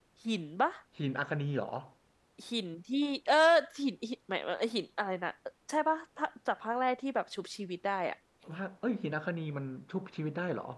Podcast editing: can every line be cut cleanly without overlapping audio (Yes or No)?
Yes